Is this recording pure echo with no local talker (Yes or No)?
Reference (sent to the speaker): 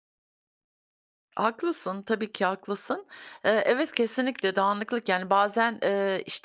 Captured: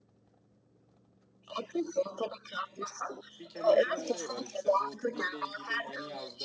No